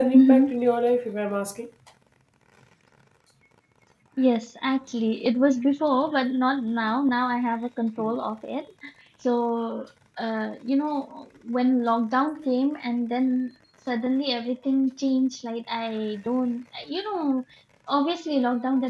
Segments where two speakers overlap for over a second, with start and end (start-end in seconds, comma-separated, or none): none